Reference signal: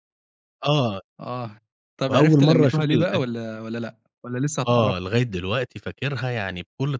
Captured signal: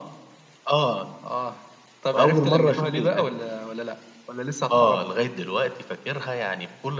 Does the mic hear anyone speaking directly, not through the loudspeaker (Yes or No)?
No